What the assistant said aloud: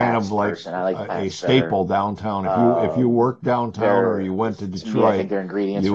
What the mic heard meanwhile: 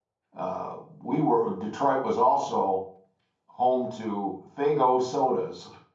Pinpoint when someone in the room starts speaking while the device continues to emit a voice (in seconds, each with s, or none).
0.4 s